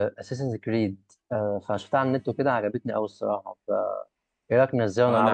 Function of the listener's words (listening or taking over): taking over